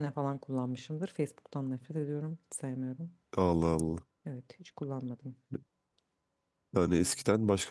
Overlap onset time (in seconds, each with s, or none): none